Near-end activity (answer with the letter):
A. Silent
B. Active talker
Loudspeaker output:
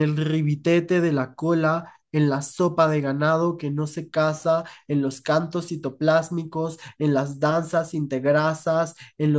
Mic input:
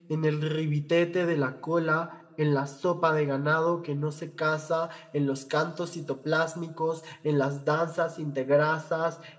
A